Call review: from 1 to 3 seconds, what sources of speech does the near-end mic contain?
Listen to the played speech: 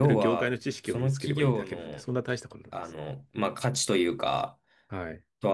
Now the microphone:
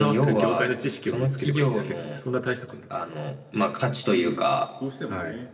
echo only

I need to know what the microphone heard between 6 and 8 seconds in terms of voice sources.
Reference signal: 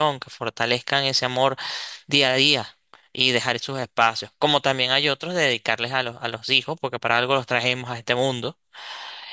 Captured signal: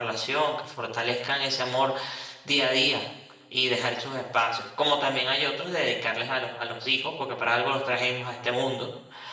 echo only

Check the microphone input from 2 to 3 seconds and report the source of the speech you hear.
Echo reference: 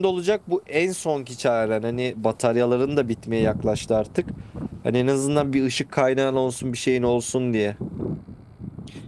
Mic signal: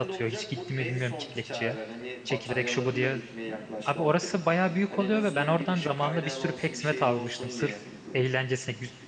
both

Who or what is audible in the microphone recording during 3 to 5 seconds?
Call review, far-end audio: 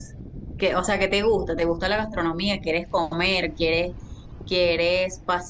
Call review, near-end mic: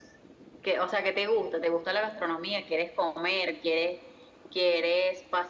echo only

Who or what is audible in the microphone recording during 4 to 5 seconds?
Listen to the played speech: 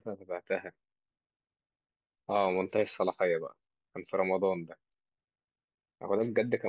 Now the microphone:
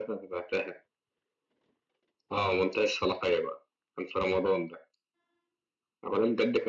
echo only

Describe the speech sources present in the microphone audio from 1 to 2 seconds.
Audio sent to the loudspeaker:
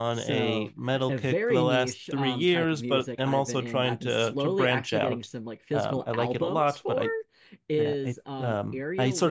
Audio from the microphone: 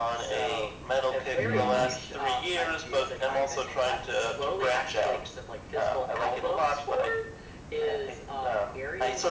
both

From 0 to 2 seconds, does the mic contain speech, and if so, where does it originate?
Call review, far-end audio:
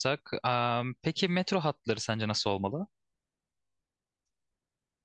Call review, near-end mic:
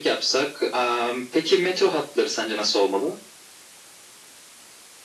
echo only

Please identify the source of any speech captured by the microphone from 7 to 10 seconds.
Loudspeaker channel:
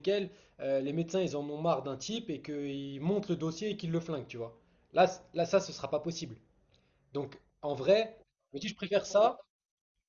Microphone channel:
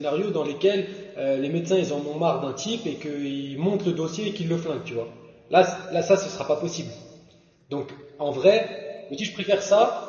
echo only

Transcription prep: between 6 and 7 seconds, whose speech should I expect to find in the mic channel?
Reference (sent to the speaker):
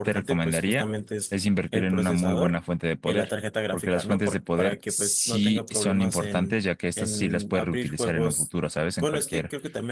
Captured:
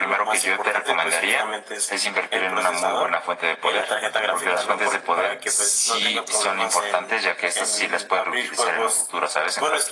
echo only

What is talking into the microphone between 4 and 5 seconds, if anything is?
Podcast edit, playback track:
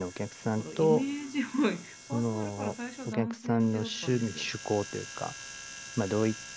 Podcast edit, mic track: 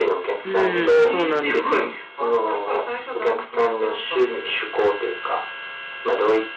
echo only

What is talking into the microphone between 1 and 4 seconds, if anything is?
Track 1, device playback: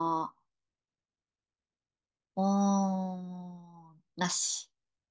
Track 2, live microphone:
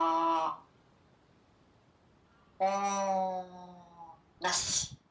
echo only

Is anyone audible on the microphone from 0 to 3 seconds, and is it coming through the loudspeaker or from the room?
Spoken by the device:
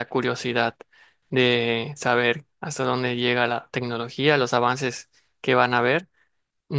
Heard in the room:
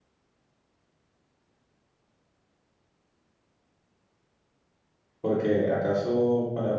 neither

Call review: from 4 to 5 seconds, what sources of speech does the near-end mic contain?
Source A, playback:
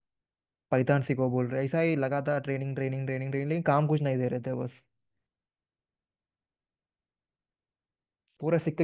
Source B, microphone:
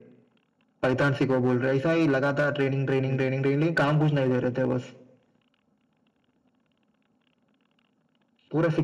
echo only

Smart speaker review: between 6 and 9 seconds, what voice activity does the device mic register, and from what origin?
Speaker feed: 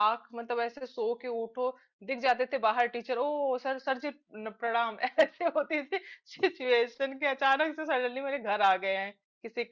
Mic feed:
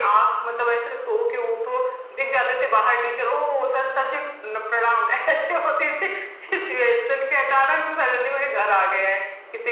echo only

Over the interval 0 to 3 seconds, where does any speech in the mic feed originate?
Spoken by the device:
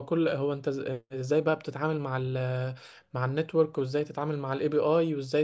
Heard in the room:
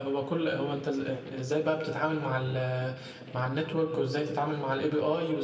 echo only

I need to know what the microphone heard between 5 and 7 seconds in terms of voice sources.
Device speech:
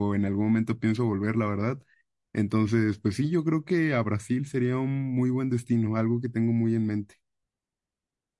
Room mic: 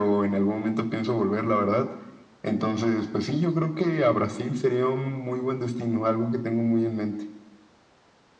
echo only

